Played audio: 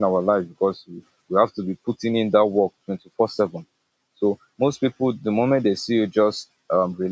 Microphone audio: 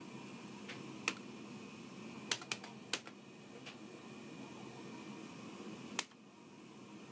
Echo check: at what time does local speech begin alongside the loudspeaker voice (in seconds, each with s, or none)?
none